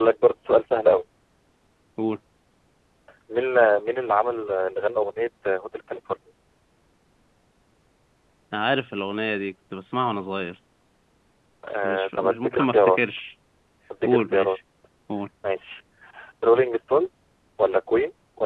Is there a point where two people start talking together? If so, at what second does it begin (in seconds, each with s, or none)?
11.7 s